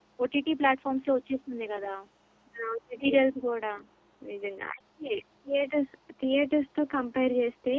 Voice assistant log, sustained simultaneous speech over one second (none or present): none